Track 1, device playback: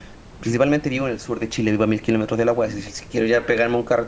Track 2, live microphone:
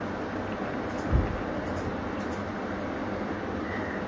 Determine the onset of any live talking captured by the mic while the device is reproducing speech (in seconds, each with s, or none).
none